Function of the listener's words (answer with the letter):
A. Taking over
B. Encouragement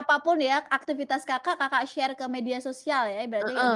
A